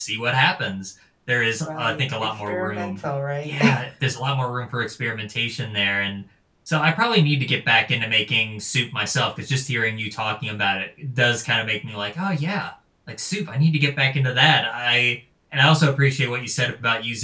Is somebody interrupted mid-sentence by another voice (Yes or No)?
Yes